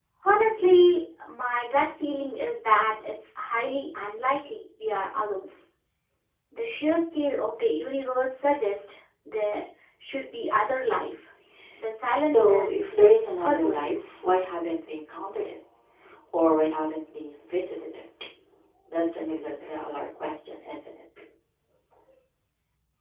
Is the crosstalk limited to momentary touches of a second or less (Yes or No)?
No